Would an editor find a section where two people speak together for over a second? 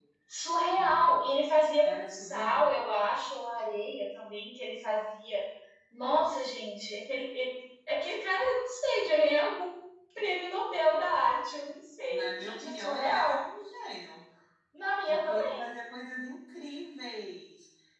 Yes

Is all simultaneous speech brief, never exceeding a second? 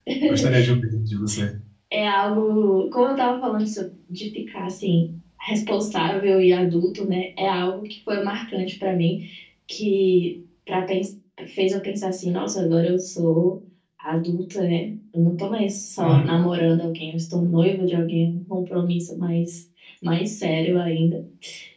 Yes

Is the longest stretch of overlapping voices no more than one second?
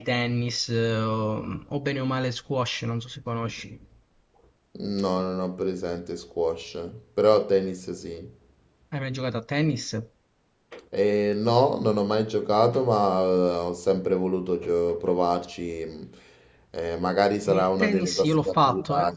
No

